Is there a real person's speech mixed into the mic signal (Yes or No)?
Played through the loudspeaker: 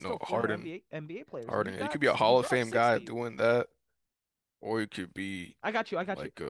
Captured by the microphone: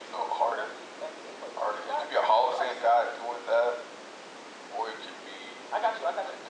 No